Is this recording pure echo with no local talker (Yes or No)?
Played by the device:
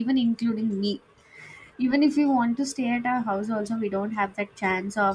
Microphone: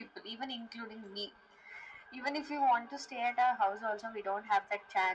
Yes